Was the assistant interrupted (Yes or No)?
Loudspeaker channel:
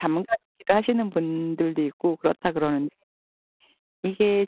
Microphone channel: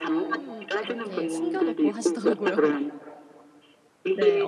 Yes